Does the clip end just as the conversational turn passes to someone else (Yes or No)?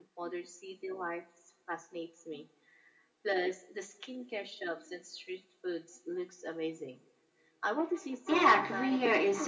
Yes